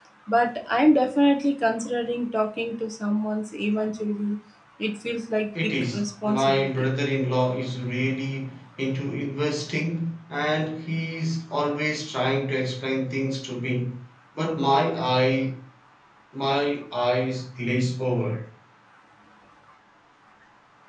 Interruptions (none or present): present